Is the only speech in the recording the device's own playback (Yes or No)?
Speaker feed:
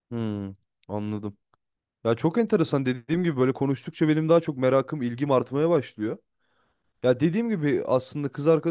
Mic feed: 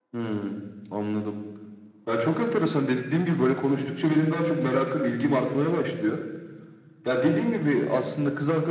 Yes